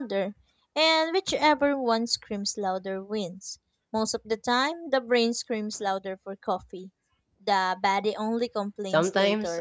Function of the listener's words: taking over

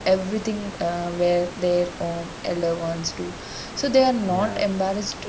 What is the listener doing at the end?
listening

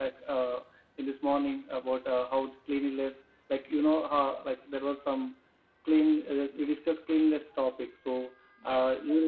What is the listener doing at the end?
listening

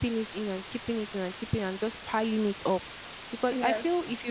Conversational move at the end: listening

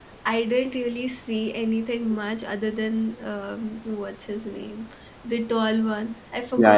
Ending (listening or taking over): taking over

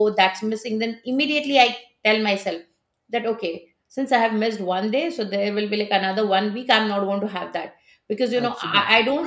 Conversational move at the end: listening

